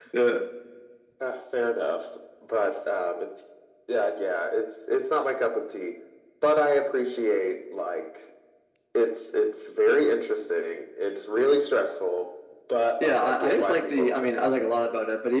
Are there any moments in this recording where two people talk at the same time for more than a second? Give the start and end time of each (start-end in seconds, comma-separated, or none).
13.0-14.5